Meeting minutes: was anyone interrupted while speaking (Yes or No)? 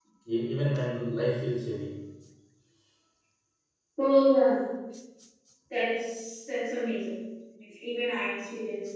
No